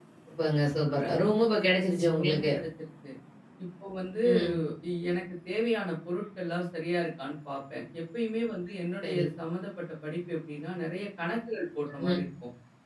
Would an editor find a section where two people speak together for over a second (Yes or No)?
No